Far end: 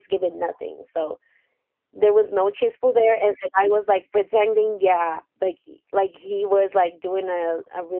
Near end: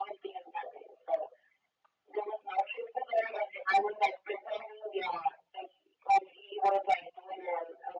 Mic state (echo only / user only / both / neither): echo only